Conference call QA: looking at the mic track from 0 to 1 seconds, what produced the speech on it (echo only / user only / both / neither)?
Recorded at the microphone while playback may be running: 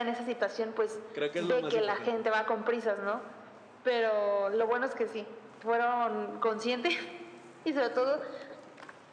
echo only